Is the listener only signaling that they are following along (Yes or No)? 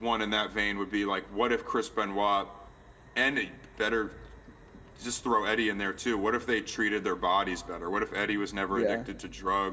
Yes